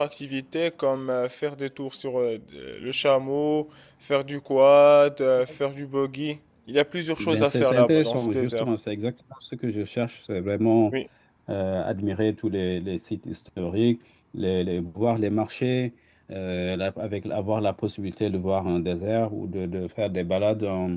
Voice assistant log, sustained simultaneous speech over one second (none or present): present